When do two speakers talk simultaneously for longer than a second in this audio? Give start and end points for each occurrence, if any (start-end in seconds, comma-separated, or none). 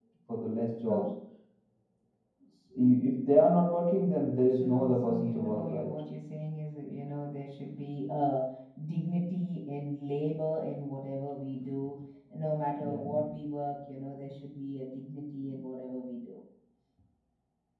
4.5-6.0